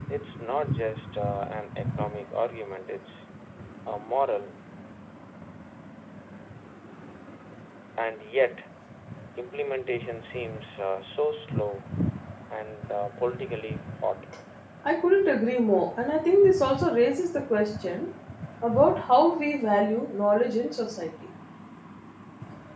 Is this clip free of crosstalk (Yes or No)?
Yes